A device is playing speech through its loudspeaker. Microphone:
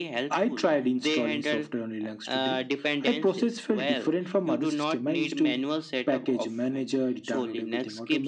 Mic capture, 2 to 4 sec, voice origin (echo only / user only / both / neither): echo only